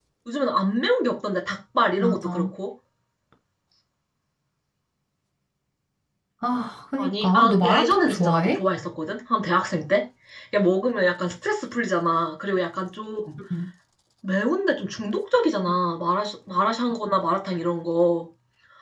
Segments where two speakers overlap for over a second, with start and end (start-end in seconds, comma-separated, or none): 7.0-8.6